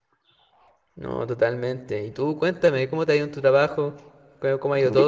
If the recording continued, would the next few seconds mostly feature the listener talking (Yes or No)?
No